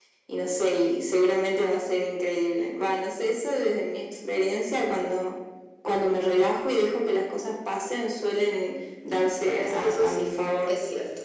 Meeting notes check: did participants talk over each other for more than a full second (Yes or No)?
Yes